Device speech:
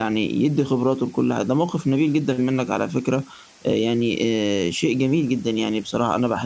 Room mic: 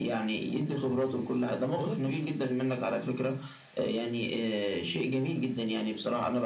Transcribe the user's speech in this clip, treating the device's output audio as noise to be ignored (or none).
فهمتني؟ فهي دي مشكلتي،